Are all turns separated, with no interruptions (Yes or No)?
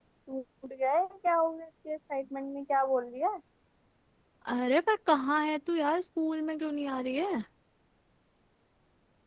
Yes